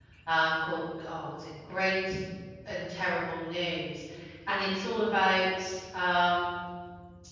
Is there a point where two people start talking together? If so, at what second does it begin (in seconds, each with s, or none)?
none